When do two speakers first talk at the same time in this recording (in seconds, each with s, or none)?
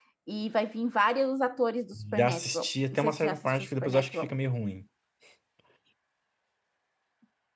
1.9 s